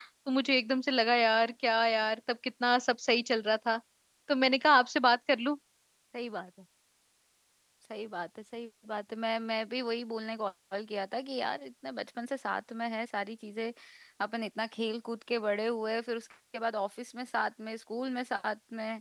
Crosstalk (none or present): none